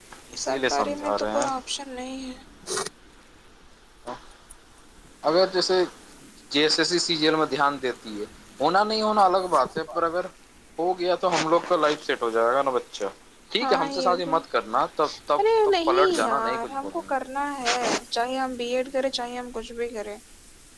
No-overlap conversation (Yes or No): No